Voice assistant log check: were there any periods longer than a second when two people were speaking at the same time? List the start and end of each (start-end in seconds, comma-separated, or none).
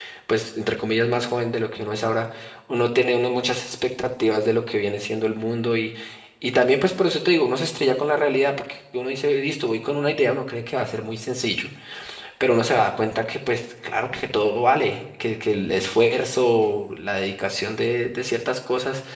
none